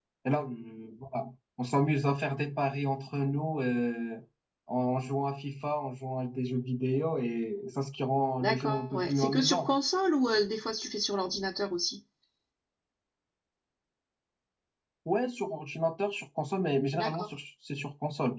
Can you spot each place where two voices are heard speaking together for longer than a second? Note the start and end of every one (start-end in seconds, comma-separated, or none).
8.4-9.8